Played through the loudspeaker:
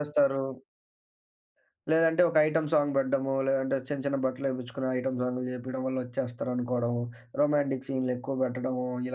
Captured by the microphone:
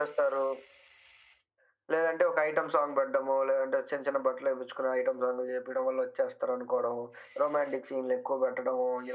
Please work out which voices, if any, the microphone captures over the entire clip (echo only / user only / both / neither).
echo only